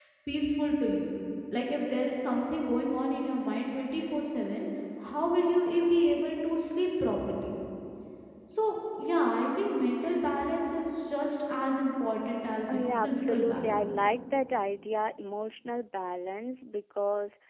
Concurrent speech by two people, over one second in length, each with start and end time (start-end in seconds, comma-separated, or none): 12.7-13.9